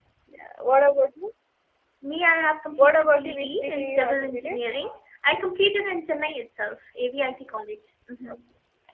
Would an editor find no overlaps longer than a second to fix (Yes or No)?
No